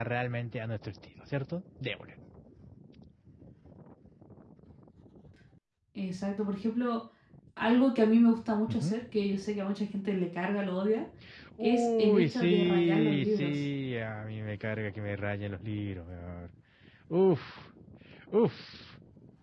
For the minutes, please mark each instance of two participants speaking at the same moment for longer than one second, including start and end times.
11.6-13.5

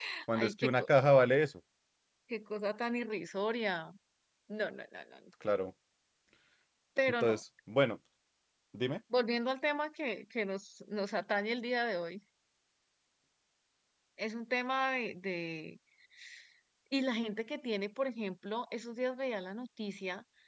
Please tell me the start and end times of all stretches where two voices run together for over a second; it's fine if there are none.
none

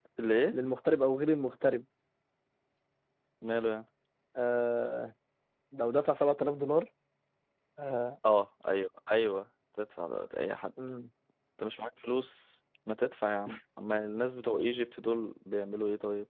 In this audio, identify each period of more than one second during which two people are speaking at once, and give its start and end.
none

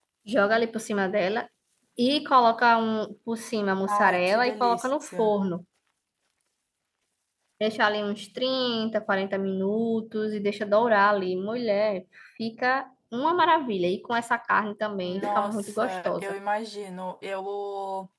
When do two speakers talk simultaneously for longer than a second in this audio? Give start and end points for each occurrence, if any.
3.9-5.3, 15.0-16.3

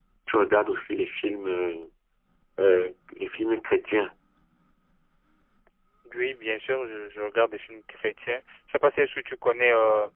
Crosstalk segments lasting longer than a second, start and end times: none

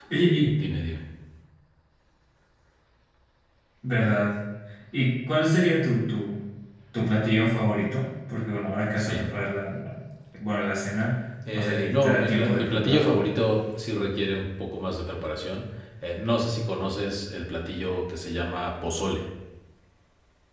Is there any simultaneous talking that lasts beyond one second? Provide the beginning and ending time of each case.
11.5-13.2

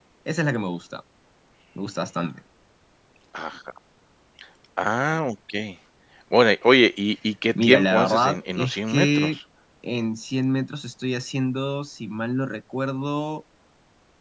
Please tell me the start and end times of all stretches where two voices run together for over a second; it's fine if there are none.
7.6-9.3

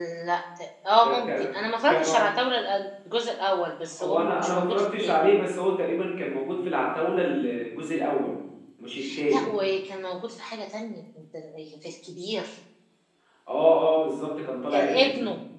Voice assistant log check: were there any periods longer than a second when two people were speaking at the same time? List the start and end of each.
4.0-5.2

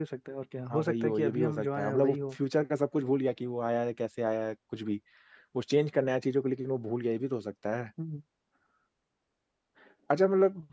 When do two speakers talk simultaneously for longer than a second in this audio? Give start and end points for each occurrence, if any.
0.7-2.3

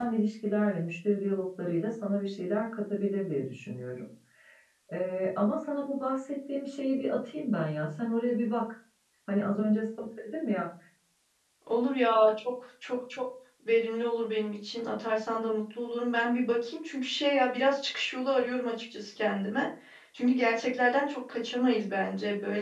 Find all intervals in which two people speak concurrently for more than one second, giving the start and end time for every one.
none

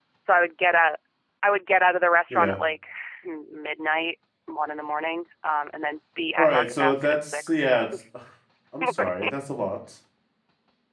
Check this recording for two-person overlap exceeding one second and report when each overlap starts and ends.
6.4-7.9

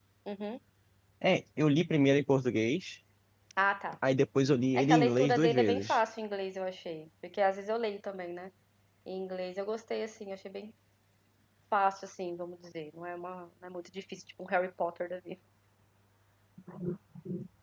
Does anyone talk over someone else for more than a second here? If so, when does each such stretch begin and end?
4.7-6.0

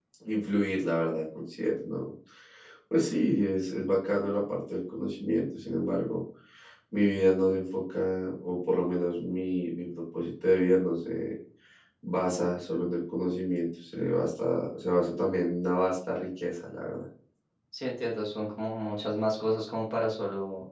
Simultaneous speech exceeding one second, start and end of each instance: none

